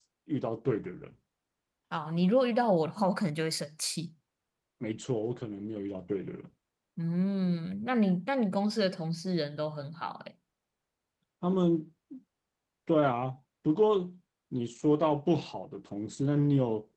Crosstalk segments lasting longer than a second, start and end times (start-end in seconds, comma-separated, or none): none